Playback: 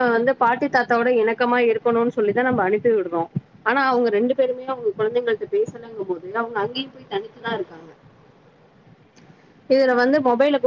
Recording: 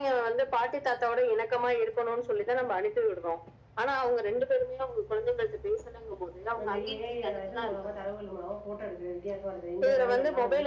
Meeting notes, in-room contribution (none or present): present